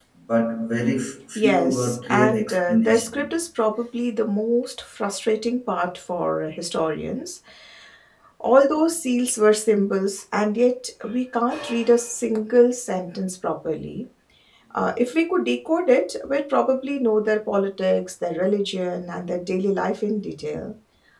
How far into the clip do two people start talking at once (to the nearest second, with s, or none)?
1 s